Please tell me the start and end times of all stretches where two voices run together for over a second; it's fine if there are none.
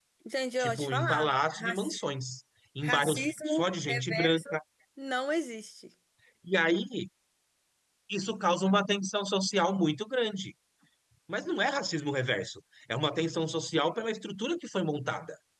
0.6-2.0, 2.8-4.4

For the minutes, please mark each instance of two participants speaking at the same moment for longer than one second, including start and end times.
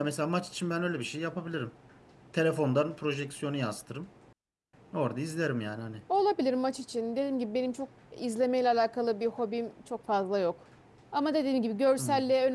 none

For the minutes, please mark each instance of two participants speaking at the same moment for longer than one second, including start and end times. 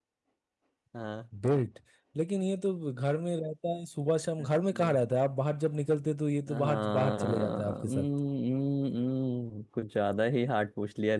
6.5-8.1

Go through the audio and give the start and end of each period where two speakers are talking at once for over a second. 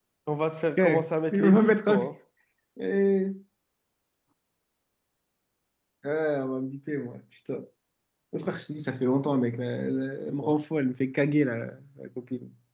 0.8-2.0

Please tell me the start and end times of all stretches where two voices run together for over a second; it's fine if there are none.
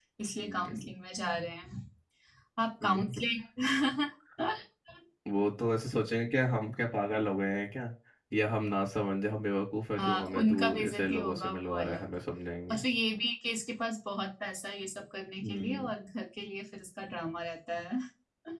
10.0-12.2

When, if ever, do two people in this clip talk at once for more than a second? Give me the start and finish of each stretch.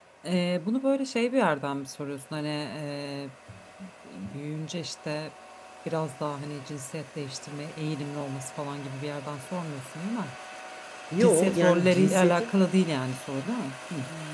11.2-12.5

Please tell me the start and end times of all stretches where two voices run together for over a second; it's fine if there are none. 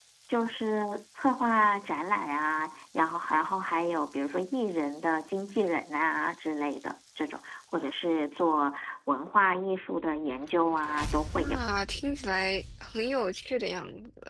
none

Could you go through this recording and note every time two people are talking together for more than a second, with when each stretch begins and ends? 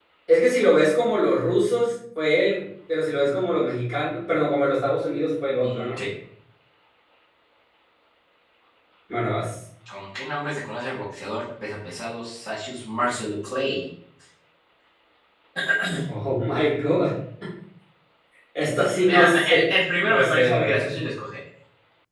19.1-21.0

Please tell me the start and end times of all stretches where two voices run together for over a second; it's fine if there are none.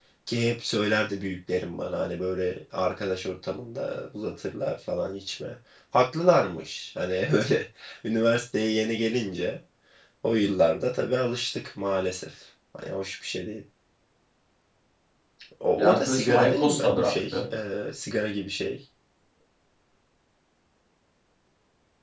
15.8-17.4

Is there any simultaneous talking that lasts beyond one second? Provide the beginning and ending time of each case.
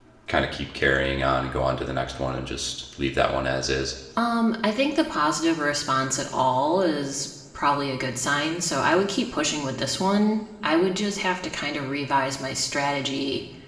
none

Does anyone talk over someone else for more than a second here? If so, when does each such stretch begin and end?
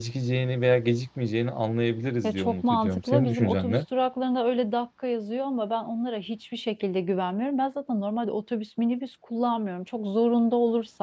2.2-3.8

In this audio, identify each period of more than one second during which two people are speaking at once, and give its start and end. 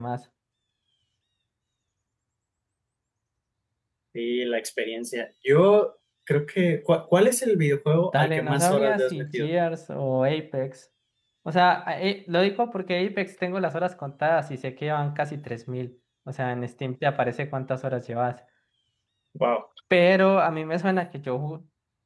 8.1-9.5

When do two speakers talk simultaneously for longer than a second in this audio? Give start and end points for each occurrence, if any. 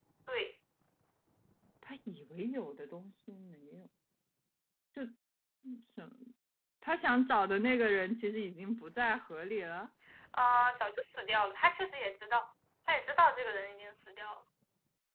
none

